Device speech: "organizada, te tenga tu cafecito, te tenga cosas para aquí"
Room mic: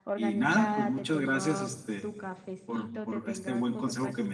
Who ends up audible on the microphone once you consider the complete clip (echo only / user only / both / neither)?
both